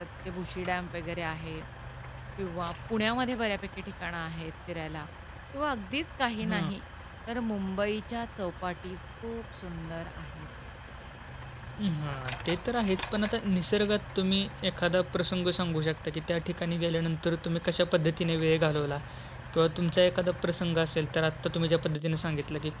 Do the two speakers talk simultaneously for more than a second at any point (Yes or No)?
No